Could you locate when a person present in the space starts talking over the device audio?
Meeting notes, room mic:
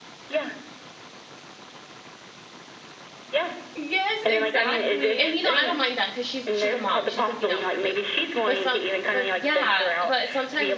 3.8 s

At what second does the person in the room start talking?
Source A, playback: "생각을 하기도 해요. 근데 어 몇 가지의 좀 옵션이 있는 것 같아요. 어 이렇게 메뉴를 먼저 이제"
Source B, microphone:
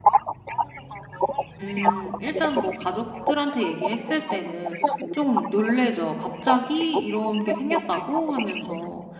1.6 s

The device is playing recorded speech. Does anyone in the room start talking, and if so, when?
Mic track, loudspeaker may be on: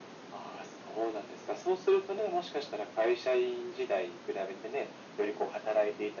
none

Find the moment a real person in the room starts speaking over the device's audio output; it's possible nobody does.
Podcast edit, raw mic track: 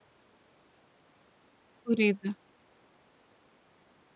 1.8 s

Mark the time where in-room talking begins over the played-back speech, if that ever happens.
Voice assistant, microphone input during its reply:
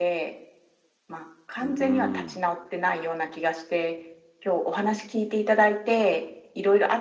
1.6 s

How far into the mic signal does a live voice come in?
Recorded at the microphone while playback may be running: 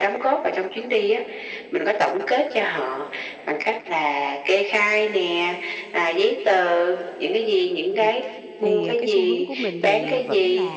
7.9 s

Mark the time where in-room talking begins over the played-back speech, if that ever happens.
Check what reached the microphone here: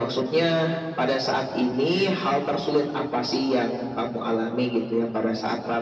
none

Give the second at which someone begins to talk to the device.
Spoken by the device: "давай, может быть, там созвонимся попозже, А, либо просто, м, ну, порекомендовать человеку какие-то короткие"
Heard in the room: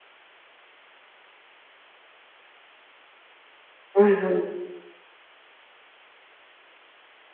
3.9 s

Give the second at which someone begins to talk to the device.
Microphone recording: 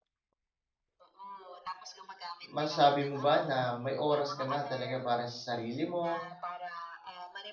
2.5 s

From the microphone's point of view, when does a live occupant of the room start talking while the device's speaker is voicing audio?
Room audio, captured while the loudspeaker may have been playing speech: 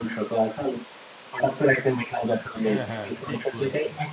2.6 s

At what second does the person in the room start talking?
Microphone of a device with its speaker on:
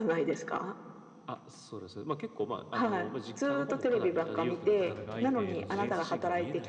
4.8 s

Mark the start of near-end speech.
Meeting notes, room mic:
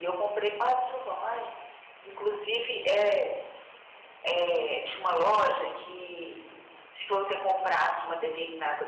none

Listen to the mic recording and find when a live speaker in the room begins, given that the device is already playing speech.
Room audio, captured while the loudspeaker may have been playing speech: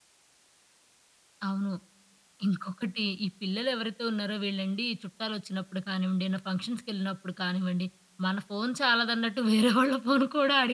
1.5 s

